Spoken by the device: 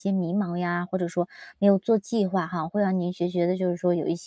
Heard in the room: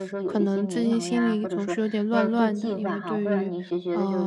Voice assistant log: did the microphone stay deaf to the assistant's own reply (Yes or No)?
No